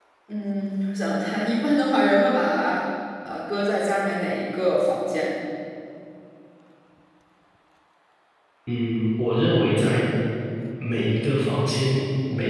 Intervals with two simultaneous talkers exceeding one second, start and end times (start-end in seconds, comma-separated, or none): none